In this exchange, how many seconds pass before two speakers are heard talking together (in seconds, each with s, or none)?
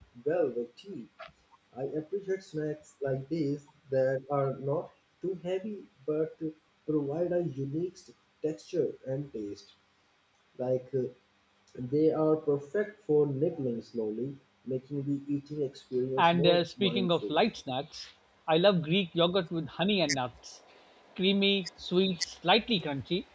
16.2 s